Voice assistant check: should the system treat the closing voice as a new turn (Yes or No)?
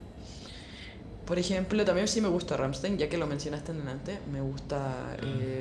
No